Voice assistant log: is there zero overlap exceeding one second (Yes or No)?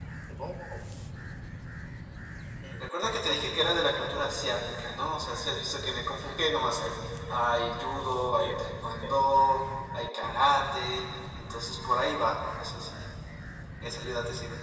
No